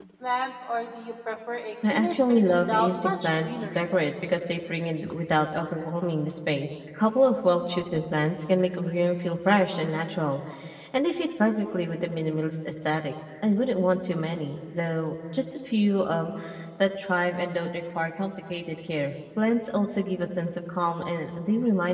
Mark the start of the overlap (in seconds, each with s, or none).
1.8 s